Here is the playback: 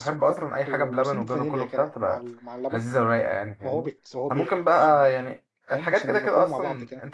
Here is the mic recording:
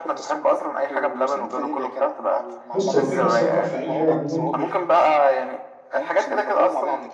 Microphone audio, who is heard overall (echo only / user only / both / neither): both